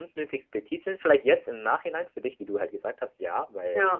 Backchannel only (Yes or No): Yes